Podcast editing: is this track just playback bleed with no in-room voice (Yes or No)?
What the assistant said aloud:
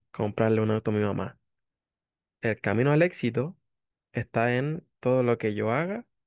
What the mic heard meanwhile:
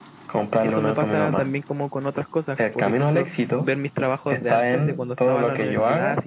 No